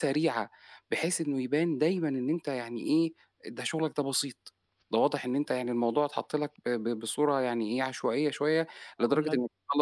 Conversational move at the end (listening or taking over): listening